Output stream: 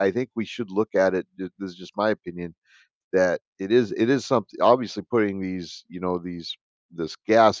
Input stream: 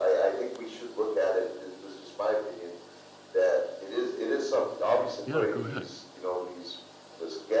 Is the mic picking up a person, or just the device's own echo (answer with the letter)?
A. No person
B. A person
B